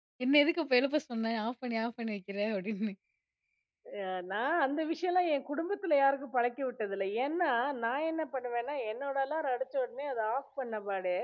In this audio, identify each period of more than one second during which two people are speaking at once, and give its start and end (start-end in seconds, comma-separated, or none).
none